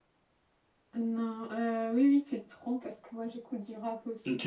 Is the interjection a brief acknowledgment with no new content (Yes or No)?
No